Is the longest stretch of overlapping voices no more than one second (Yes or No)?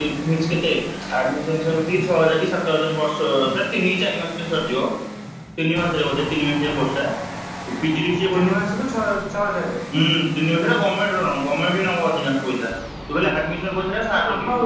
Yes